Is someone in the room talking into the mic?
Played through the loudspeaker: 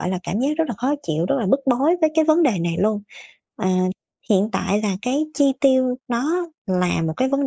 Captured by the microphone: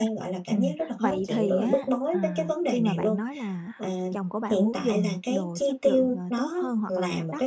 Yes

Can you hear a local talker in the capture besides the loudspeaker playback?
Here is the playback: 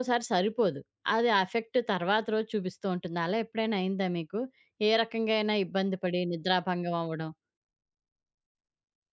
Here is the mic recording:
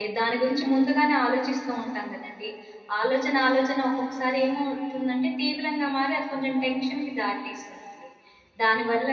Yes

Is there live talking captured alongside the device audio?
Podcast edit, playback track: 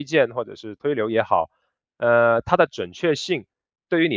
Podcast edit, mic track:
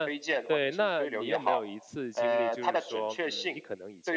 Yes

